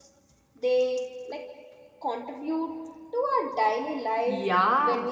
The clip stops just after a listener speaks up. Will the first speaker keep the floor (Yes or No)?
No